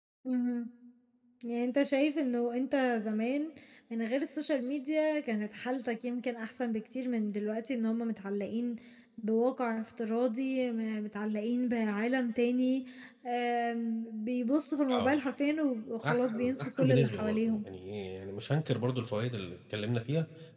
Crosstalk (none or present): present